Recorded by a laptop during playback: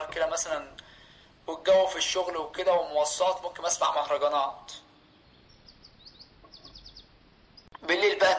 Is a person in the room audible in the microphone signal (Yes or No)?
No